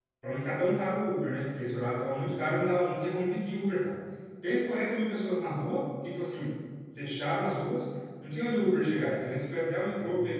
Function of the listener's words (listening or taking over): listening